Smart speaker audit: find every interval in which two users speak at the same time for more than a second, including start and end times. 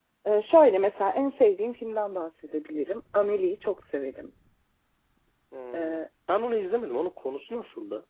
none

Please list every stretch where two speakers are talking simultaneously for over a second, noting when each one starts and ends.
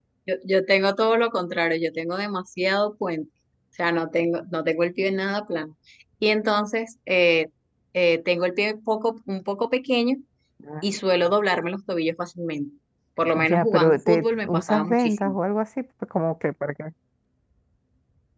13.3-15.3

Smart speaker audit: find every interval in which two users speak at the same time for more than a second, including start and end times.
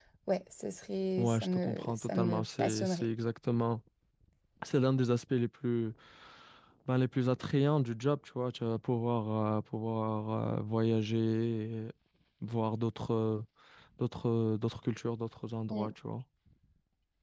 1.2-3.0

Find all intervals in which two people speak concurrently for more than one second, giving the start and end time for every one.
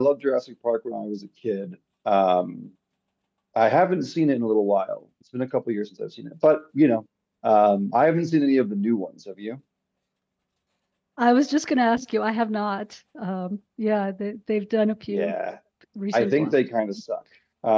none

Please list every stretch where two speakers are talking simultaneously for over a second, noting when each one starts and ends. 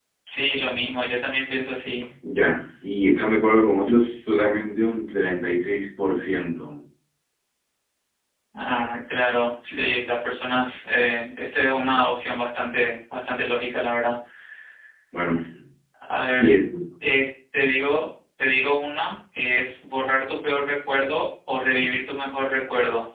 none

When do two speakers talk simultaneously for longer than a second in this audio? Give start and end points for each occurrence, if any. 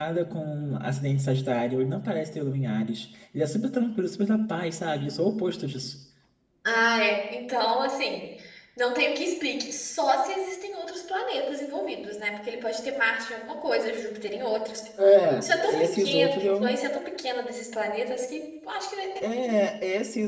15.4-16.8

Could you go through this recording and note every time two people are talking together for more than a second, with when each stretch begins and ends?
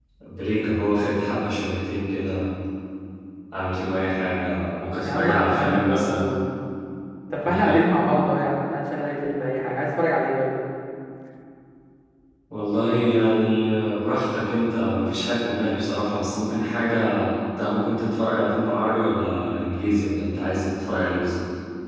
5.0-6.3

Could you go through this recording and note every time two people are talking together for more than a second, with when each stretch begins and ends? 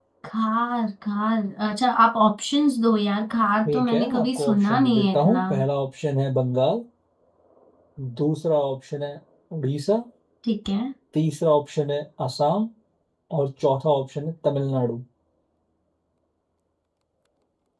3.6-5.4

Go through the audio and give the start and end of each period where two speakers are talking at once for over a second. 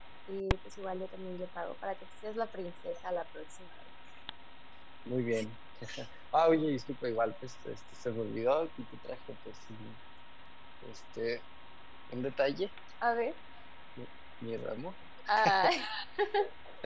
none

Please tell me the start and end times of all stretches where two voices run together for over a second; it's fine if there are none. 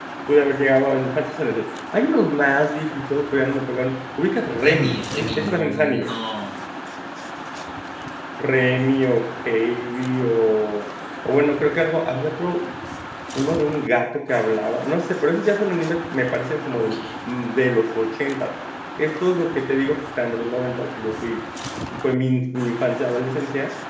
4.5-6.1

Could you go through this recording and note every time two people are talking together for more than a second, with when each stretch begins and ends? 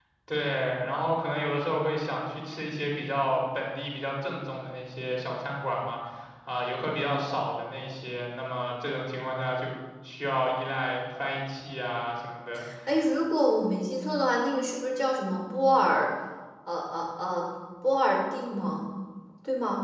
none

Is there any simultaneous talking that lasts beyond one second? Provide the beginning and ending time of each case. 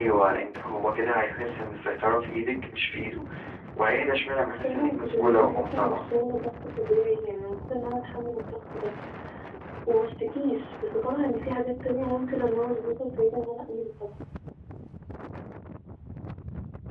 4.6-6.1

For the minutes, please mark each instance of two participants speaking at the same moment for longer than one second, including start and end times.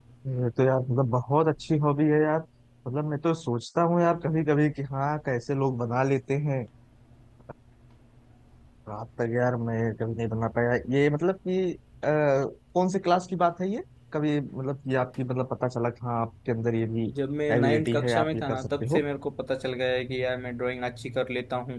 17.6-19.0

